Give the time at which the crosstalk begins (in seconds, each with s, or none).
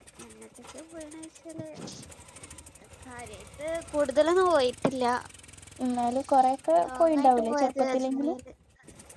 6.8 s